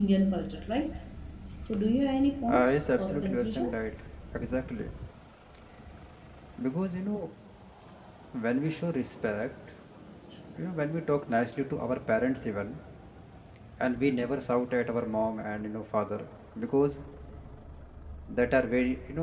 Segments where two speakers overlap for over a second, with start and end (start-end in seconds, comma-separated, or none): 2.5-3.7